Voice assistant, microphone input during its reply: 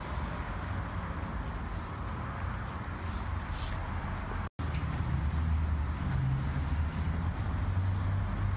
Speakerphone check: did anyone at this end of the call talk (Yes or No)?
No